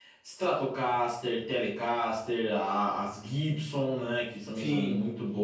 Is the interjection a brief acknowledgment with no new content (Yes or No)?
No